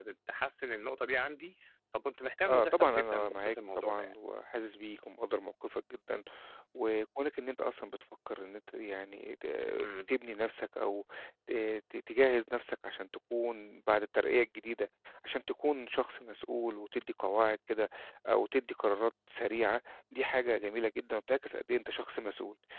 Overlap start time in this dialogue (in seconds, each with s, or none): 2.4 s